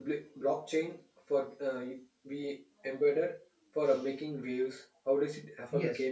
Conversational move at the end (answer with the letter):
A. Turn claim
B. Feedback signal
A